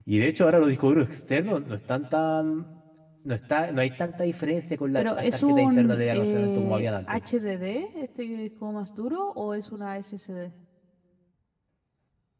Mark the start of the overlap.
5.0 s

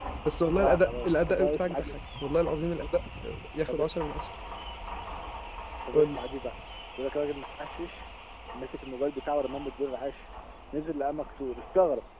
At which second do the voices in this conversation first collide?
0.6 s

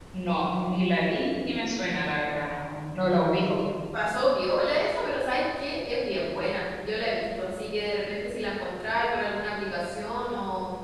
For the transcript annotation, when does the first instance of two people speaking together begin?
none

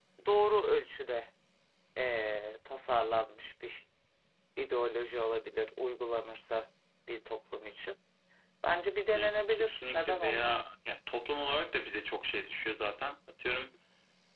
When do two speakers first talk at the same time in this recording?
9.1 s

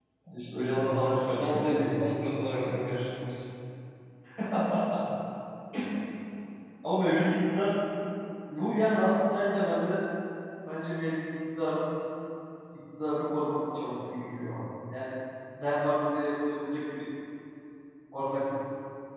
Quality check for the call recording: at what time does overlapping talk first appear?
0.8 s

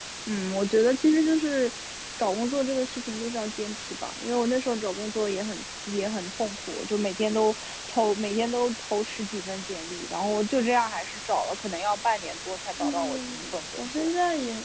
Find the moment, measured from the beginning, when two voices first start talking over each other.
12.8 s

